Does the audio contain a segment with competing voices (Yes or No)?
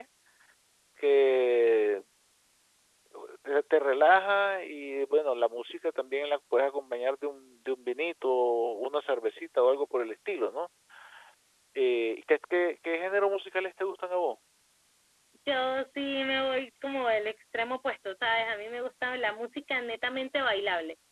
No